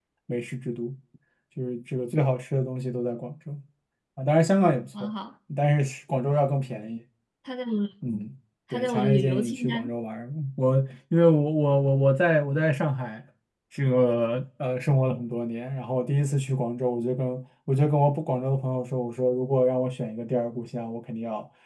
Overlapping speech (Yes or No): Yes